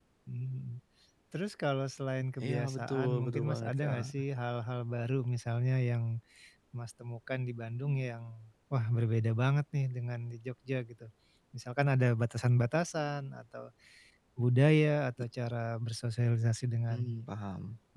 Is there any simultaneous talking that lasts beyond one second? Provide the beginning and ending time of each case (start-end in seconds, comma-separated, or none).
2.4-4.1